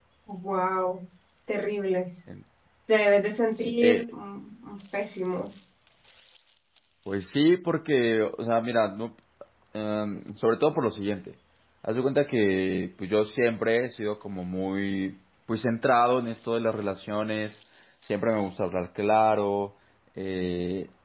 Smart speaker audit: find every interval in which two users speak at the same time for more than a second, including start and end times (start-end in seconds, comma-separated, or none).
none